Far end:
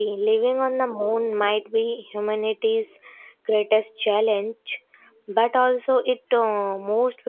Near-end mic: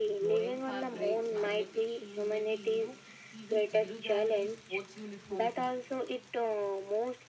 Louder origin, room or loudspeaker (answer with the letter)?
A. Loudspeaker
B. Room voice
A